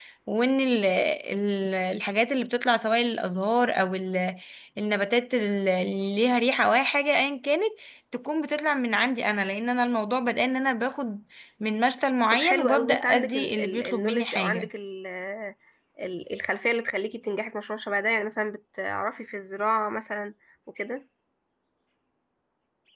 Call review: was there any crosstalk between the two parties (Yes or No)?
Yes